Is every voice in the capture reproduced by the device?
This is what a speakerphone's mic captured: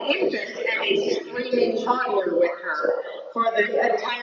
Yes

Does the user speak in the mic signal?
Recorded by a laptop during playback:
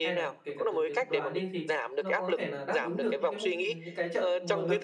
Yes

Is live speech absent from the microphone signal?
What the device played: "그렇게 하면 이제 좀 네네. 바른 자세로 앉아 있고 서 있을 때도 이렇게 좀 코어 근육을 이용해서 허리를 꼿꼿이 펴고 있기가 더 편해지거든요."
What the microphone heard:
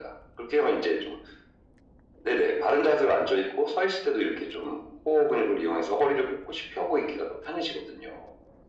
Yes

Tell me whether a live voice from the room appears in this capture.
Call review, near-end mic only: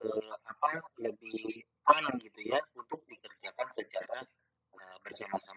No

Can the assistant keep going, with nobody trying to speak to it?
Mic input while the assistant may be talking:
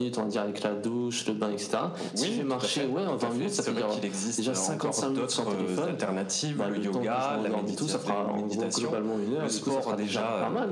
Yes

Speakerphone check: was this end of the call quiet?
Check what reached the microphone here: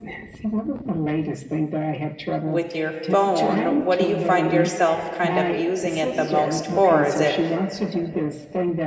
No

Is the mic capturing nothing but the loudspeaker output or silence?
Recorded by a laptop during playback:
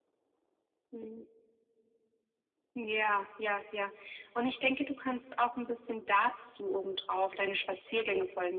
Yes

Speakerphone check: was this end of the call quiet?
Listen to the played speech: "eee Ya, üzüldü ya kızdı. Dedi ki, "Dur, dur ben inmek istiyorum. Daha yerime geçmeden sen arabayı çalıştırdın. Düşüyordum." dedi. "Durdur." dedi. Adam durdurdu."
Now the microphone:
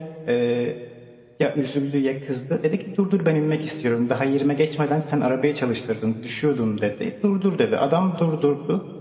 Yes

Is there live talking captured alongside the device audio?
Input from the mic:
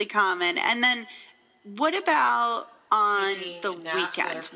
Yes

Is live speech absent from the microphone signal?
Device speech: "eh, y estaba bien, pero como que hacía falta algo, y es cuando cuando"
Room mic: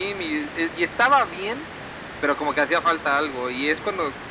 Yes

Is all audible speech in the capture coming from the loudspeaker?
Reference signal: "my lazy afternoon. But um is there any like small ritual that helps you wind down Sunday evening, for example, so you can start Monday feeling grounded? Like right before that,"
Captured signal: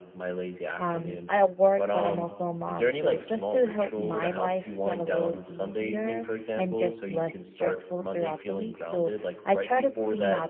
No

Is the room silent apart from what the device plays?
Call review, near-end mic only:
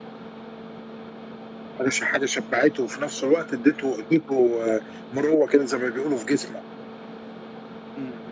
Yes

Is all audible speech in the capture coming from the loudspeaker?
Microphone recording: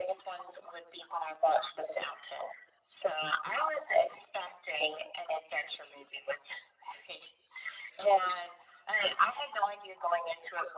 Yes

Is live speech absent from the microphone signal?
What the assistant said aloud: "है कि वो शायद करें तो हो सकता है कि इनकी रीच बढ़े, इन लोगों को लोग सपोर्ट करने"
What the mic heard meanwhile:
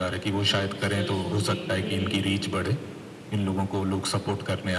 No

